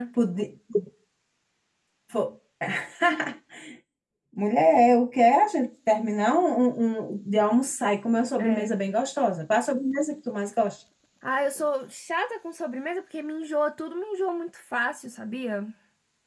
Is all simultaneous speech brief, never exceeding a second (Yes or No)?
Yes